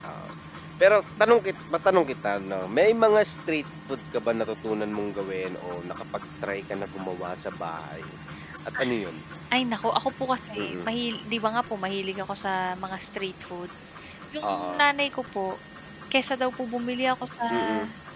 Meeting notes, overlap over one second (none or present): none